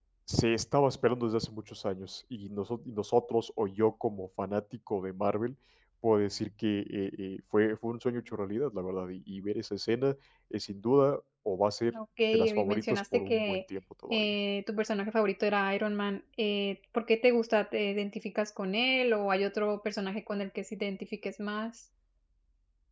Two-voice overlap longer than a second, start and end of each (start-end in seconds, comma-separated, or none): 12.3-13.6